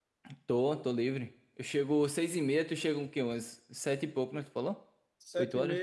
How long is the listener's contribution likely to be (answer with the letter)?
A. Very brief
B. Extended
B